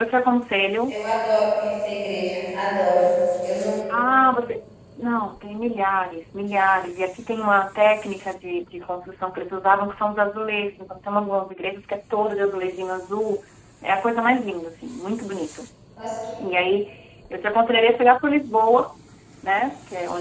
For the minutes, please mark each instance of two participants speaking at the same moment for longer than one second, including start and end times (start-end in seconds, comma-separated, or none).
none